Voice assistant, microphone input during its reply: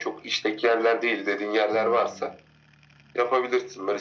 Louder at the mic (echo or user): echo